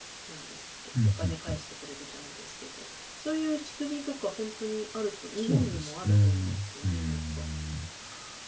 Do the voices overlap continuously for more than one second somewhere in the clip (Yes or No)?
Yes